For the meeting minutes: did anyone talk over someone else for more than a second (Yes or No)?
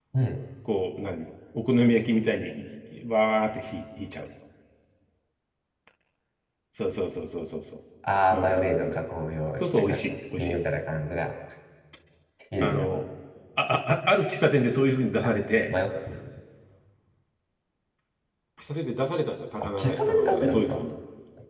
Yes